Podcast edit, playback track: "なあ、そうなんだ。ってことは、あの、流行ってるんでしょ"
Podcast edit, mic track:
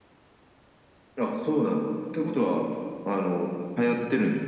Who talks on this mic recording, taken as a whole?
echo only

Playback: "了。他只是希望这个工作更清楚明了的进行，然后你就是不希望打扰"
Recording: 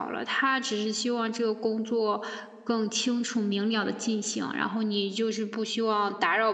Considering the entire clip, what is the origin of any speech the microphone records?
echo only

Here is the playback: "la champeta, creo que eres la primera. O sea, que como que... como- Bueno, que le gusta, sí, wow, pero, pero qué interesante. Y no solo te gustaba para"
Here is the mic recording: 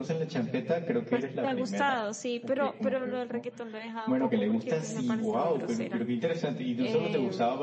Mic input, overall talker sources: both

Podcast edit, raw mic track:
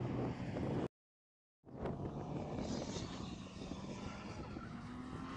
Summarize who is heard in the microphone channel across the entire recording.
neither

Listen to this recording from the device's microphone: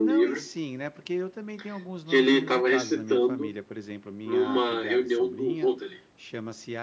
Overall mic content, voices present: both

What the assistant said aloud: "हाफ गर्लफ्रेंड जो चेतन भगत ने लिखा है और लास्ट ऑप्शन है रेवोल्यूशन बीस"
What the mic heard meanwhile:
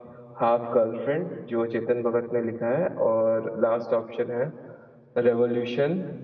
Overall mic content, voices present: echo only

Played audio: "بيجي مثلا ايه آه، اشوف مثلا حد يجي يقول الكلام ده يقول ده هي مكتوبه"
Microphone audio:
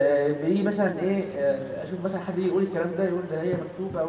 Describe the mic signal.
echo only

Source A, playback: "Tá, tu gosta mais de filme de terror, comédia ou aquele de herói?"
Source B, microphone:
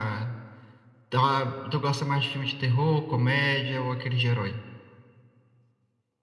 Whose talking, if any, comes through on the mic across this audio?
echo only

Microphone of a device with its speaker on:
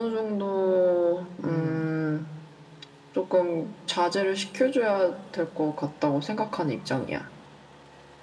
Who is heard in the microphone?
both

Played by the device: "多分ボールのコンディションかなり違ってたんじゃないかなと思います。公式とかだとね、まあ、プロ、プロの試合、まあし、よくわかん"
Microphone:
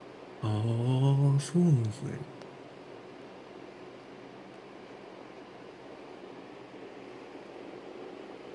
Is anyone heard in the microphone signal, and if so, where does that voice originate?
user only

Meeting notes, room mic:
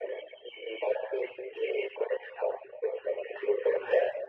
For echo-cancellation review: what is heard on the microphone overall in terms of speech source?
echo only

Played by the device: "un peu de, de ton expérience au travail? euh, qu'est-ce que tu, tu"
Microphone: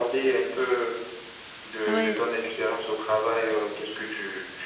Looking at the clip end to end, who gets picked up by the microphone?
both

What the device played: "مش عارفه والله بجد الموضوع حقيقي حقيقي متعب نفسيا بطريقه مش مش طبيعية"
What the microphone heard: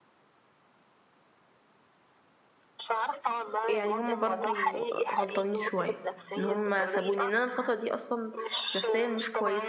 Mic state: both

